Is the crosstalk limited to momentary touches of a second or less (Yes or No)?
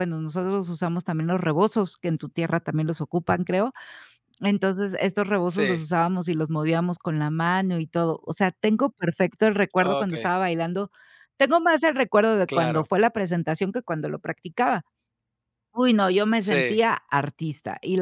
Yes